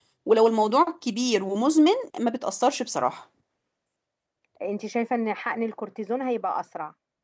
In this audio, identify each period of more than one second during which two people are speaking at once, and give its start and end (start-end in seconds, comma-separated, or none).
none